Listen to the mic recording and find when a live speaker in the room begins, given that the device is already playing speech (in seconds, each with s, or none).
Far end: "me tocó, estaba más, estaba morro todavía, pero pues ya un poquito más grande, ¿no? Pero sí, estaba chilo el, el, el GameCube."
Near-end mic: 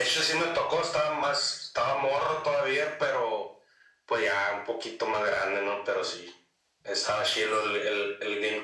none